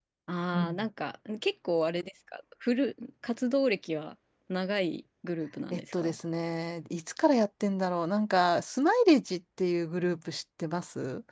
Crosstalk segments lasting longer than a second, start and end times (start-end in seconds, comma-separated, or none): none